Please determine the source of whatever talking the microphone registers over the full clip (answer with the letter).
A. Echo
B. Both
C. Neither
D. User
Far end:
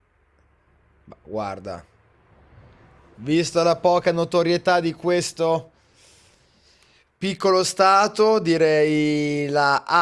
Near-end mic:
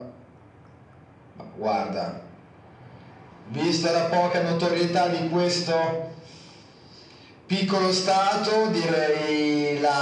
A